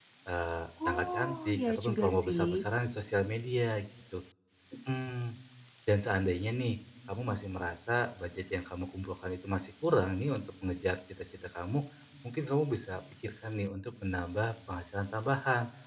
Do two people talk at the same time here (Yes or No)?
Yes